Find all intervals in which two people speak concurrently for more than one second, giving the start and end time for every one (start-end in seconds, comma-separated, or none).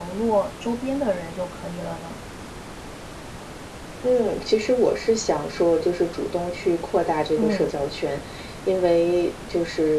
none